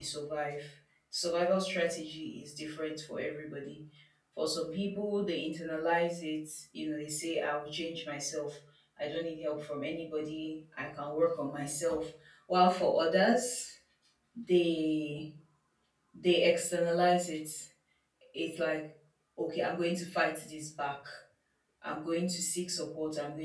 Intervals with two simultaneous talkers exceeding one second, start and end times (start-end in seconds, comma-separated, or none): none